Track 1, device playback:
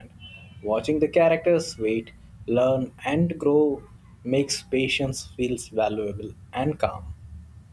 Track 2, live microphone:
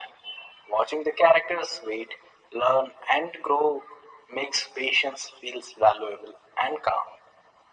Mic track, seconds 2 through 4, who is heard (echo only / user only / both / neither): echo only